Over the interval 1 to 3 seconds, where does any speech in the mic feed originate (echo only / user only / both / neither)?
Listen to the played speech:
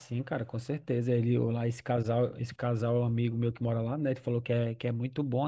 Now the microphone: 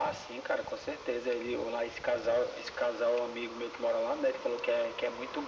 echo only